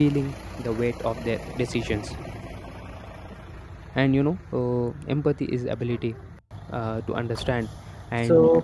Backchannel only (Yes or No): Yes